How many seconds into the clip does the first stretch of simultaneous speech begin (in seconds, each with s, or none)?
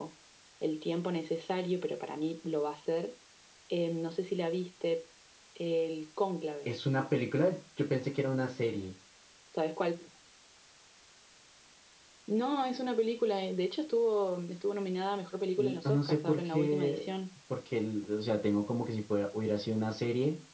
15.6 s